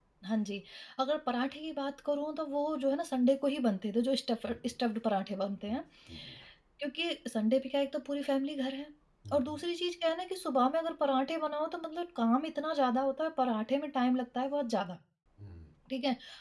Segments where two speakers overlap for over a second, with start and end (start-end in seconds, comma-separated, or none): none